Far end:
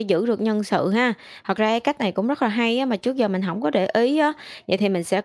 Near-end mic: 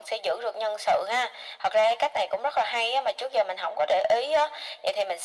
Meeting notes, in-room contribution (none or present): none